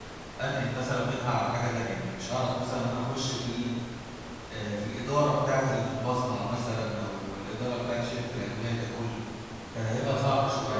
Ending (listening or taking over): taking over